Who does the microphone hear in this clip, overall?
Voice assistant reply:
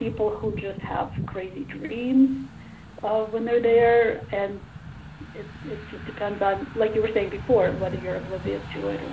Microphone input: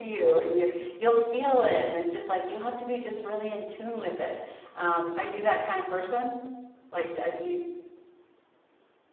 user only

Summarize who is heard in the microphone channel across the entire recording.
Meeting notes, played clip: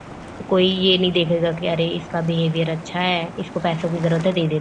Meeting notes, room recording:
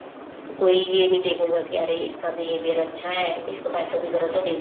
echo only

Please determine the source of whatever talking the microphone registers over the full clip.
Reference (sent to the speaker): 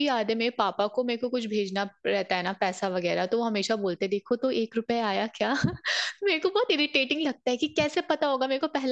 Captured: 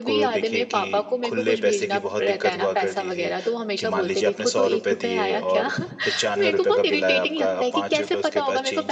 both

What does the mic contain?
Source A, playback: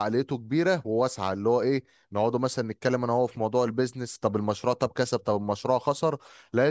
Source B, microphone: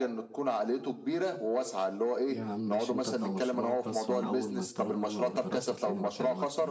both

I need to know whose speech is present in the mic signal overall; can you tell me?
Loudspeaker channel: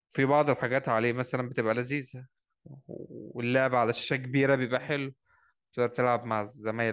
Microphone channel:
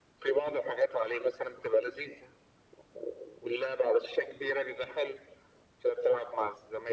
echo only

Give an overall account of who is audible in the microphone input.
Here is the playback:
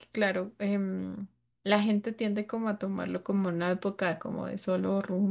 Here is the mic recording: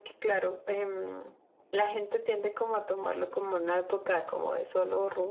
echo only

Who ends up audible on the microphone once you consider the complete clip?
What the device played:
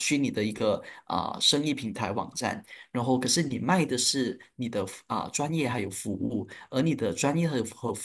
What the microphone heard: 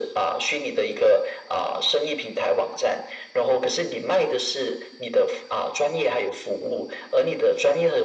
echo only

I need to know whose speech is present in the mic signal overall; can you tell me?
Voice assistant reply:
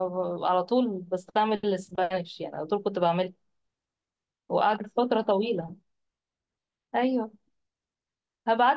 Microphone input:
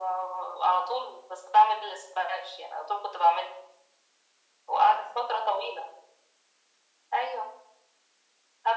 echo only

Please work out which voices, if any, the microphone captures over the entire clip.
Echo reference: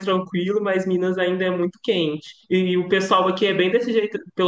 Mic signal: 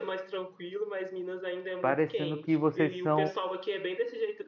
both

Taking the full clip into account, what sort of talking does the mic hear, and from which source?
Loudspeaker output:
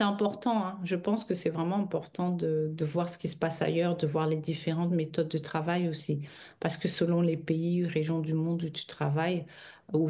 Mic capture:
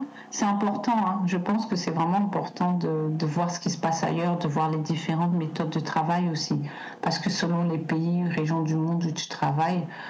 echo only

